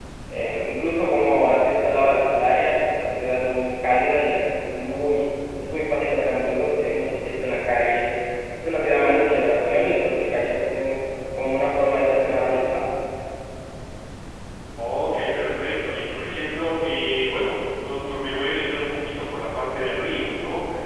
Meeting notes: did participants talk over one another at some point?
No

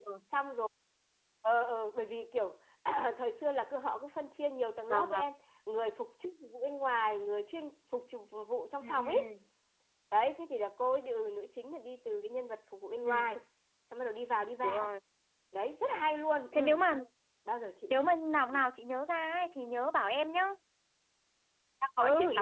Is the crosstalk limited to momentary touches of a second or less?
Yes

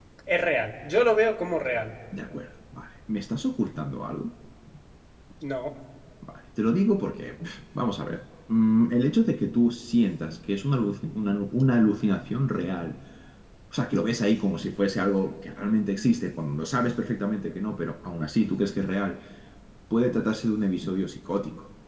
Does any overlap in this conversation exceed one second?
No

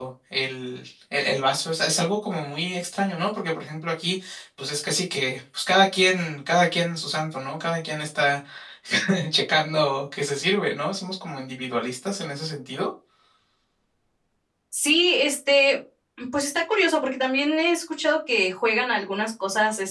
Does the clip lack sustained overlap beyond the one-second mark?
Yes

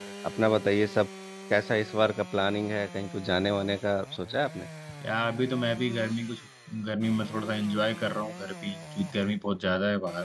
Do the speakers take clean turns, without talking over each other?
Yes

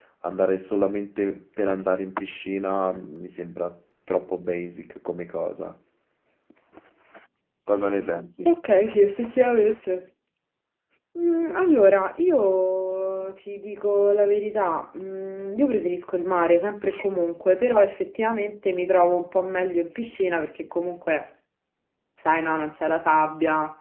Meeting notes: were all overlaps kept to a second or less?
Yes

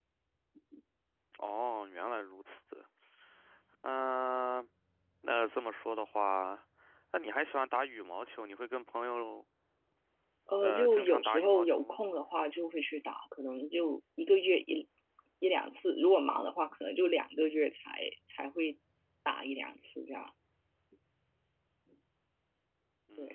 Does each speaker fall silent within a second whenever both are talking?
No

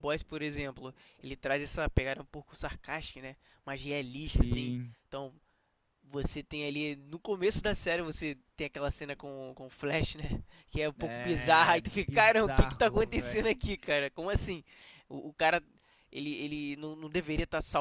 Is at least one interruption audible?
Yes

